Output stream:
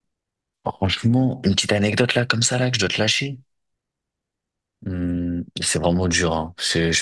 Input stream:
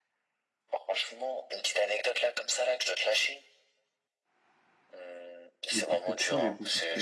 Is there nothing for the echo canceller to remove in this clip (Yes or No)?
No